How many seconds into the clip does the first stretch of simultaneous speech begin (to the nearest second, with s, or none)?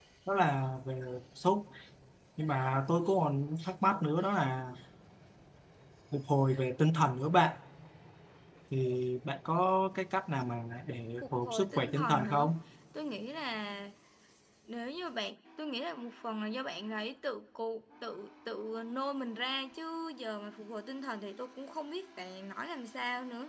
11 s